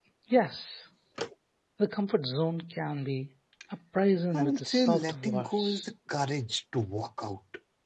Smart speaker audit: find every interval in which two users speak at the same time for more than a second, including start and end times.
4.3-5.9

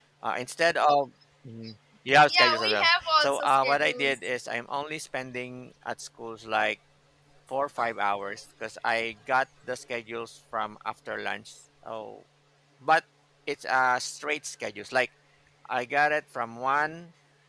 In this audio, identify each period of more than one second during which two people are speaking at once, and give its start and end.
2.3-4.2

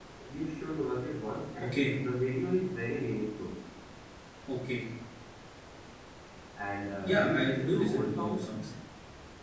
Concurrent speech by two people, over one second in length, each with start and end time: 7.0-8.4

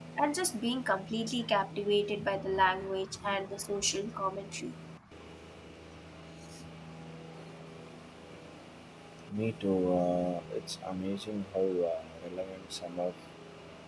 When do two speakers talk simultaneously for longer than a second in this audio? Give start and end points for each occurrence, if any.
none

